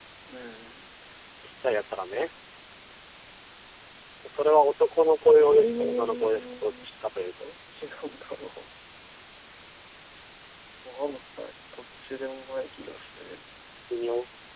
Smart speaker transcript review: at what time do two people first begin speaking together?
5 s

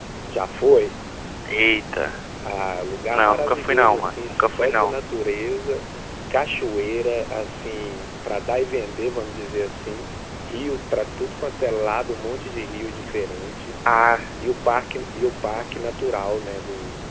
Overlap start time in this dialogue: 3 s

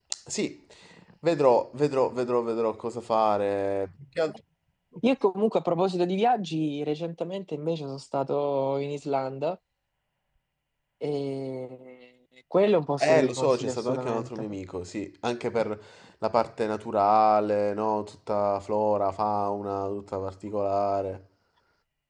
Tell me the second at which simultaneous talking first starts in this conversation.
13 s

